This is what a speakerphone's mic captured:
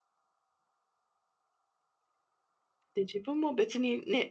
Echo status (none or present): none